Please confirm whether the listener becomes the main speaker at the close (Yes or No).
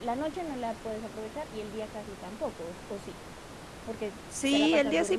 Yes